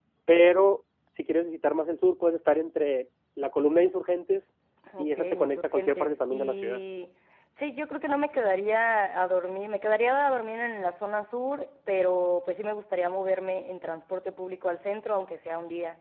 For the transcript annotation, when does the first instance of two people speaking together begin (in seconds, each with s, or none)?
5.0 s